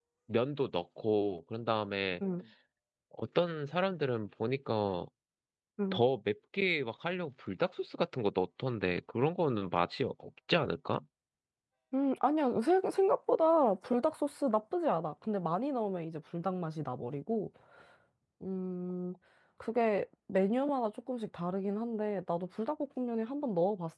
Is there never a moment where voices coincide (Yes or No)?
Yes